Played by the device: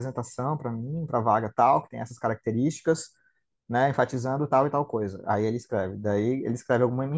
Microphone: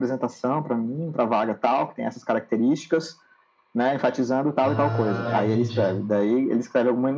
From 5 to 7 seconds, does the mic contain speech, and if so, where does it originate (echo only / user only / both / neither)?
both